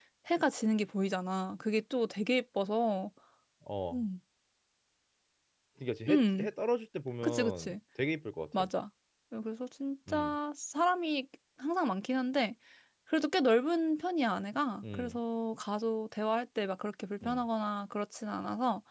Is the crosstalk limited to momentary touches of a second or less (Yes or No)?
Yes